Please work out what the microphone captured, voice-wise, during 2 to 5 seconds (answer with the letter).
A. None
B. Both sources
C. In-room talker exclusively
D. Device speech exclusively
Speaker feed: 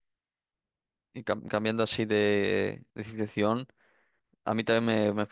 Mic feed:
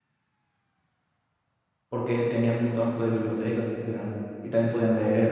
C